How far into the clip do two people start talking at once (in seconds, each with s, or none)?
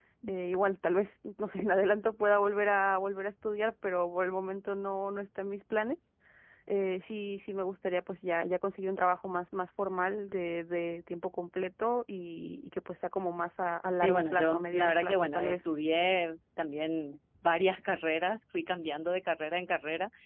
14.0 s